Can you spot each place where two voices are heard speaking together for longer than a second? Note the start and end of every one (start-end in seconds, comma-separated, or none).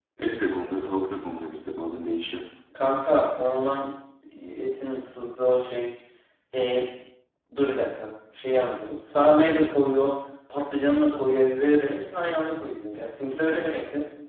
none